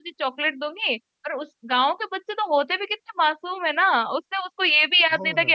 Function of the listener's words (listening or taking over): listening